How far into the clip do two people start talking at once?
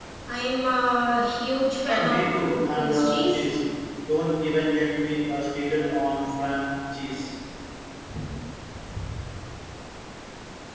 2 s

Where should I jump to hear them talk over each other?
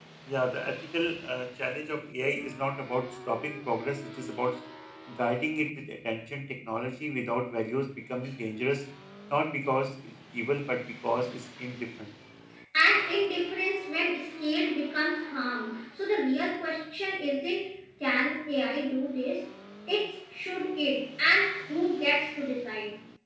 none

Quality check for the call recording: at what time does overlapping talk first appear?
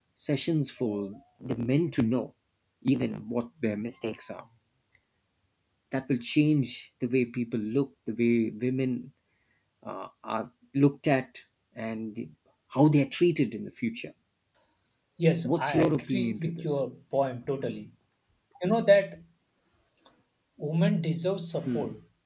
15 s

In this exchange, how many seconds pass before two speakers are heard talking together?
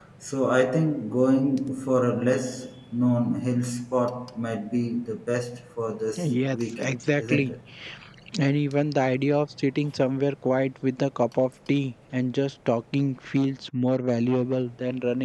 6 s

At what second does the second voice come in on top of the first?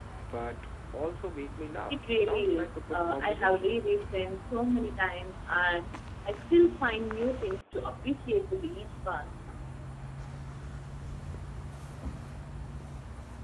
2 s

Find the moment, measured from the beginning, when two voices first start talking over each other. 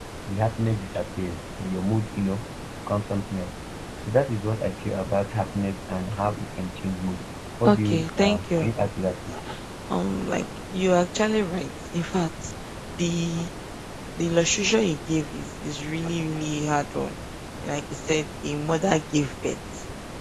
8 s

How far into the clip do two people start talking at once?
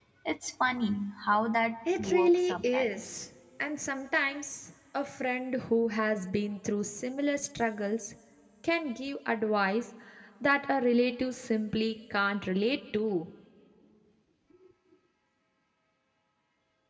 2 s

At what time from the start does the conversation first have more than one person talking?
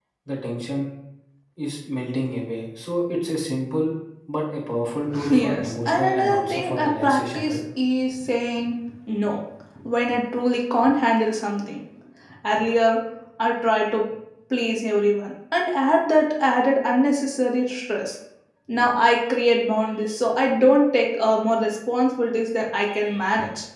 5 s

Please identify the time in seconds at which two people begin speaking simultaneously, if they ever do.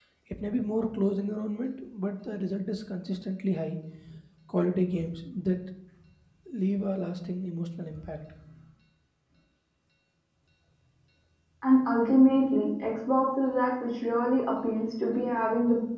none

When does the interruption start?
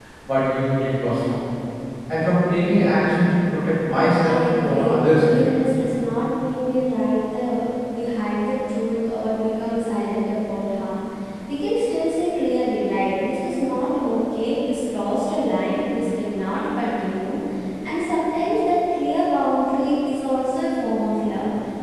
4 s

